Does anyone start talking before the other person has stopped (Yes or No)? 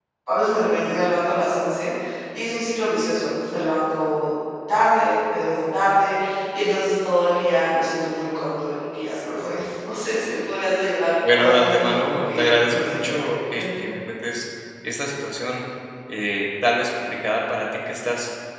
Yes